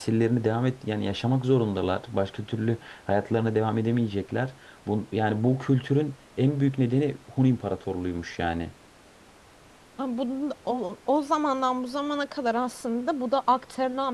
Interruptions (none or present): none